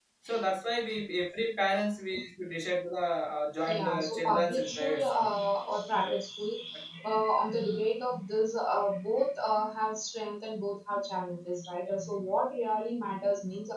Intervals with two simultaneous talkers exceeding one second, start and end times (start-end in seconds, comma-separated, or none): 3.7-5.3